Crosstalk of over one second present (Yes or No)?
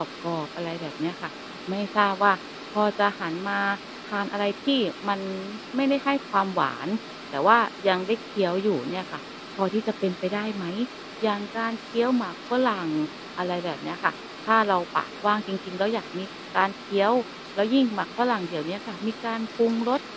No